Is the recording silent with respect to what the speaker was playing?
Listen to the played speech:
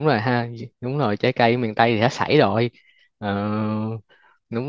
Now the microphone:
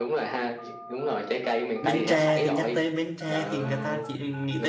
No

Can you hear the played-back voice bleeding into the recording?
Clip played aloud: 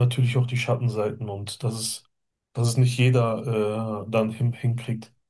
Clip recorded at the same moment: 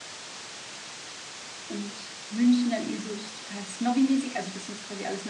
No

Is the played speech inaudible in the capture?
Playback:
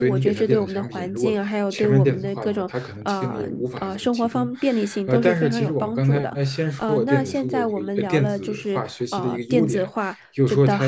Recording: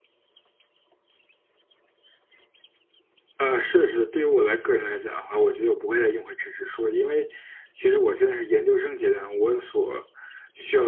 Yes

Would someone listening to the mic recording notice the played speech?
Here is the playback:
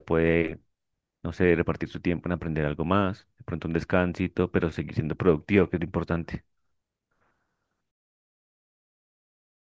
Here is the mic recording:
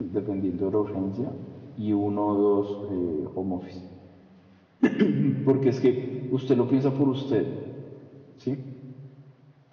No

